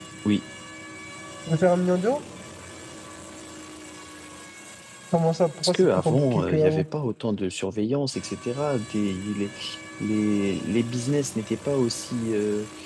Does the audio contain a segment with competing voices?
Yes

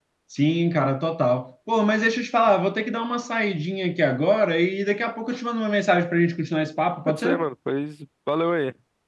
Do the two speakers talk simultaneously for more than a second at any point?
No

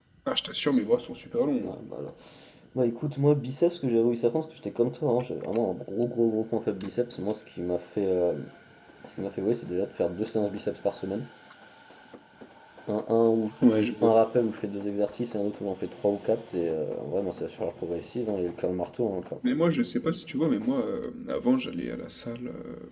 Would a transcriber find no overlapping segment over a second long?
Yes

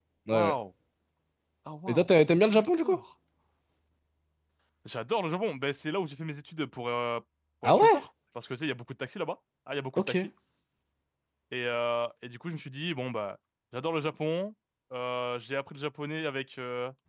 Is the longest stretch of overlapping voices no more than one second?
Yes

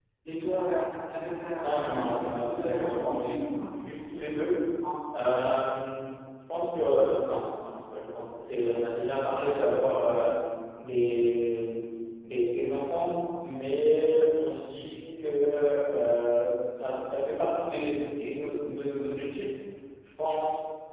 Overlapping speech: Yes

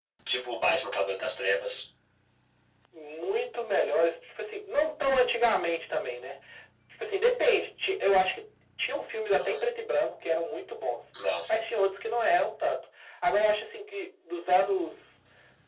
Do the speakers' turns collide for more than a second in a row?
No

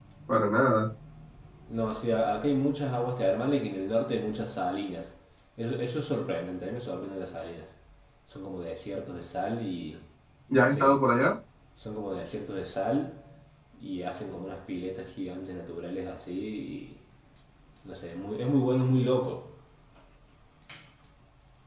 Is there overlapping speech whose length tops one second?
No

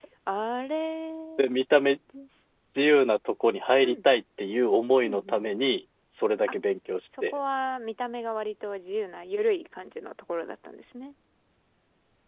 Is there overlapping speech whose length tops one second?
No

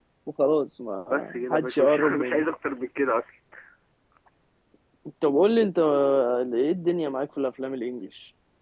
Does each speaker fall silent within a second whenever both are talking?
No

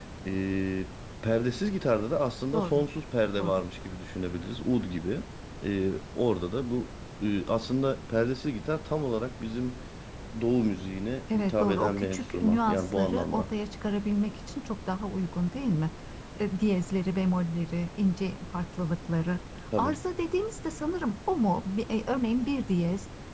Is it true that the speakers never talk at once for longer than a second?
No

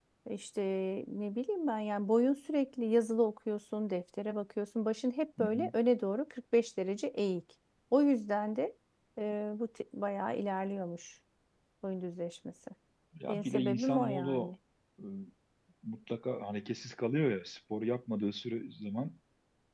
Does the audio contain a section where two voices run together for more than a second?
Yes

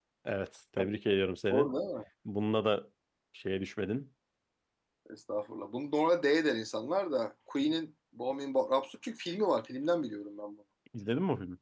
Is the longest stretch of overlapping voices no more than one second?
Yes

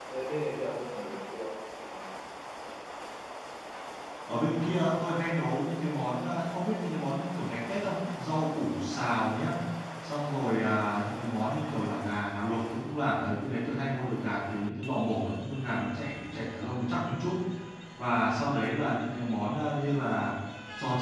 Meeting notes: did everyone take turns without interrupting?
Yes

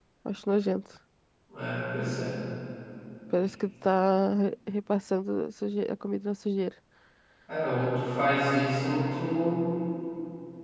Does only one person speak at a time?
Yes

